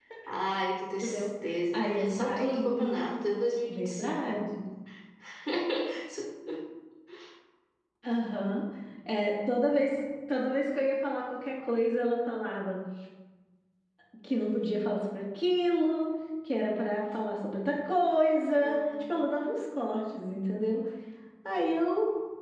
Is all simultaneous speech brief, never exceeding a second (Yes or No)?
No